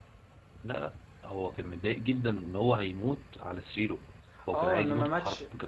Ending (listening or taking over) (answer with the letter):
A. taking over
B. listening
A